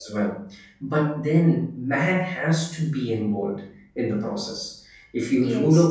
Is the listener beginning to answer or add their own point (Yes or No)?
No